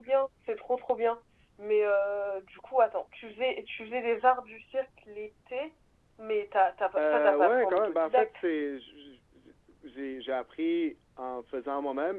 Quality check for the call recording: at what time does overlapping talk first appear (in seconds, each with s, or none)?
7.0 s